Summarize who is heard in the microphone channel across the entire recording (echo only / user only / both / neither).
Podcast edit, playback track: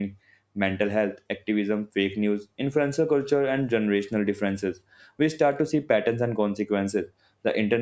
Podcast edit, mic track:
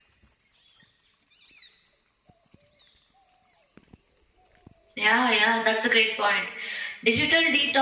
user only